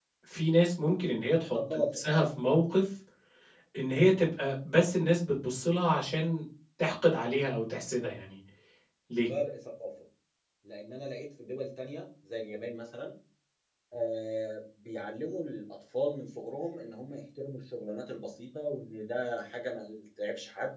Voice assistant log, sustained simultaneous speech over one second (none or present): none